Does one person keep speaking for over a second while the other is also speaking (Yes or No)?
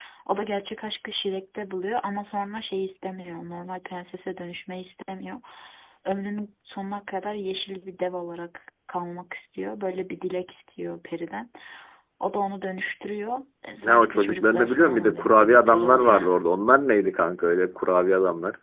Yes